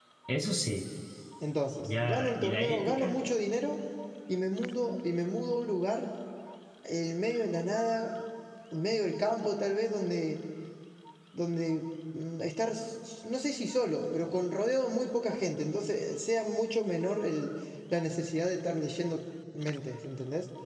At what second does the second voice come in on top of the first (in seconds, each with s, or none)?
1.8 s